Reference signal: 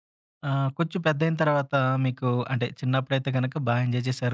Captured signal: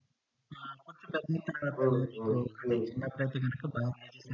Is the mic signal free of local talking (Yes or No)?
No